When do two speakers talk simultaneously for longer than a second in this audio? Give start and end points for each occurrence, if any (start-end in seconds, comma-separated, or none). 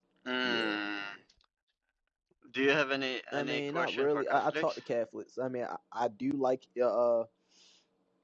3.3-4.8